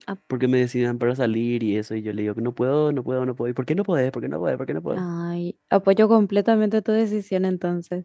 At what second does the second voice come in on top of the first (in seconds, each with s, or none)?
none